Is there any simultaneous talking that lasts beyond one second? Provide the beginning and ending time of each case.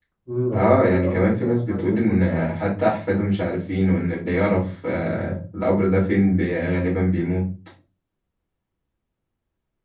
0.5-2.4

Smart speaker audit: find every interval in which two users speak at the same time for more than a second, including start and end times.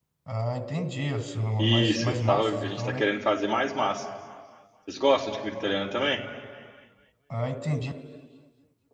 1.6-3.0

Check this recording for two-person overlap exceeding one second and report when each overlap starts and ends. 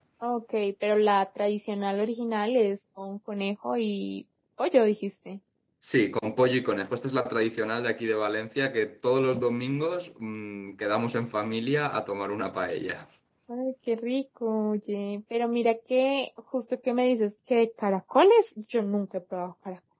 none

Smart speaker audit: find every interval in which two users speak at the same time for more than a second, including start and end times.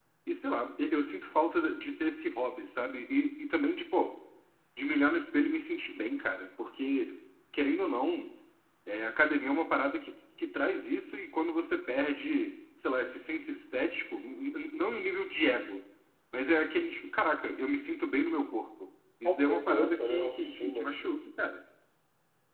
19.2-20.9

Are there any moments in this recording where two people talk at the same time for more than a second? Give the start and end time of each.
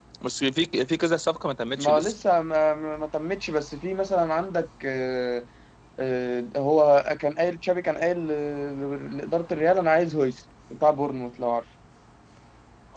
none

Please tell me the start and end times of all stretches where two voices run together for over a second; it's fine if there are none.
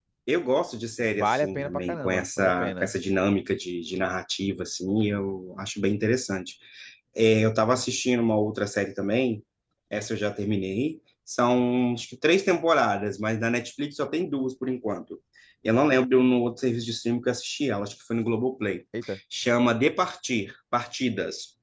1.1-2.9

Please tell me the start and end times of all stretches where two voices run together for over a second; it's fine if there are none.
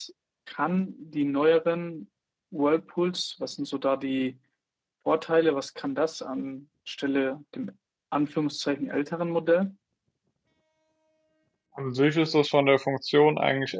none

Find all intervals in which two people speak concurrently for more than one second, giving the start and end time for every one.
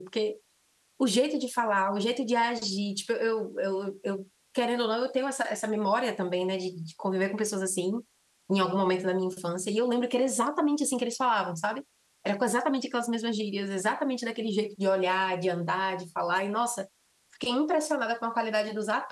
none

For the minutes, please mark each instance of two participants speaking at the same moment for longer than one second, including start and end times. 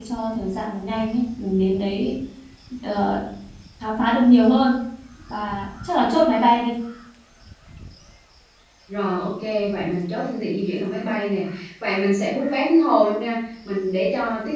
none

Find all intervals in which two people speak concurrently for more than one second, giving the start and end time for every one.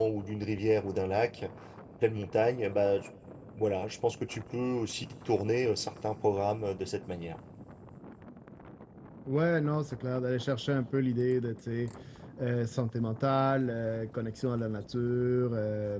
none

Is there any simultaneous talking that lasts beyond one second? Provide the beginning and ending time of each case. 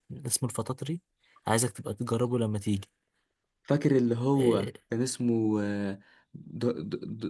none

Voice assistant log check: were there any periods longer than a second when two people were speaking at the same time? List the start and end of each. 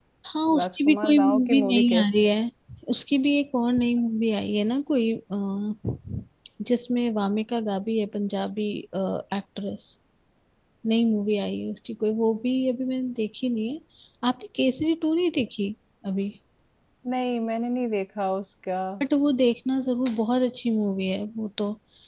0.6-2.1

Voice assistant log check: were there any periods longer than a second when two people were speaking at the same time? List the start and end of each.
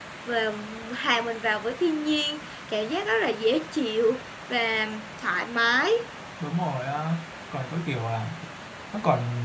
none

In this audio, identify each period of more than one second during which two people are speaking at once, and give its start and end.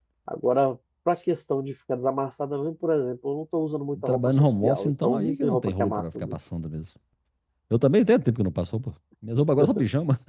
4.0-6.3

